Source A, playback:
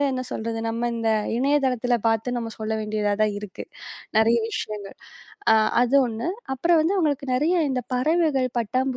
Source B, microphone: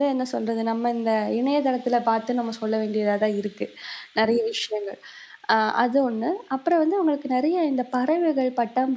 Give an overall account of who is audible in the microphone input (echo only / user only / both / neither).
echo only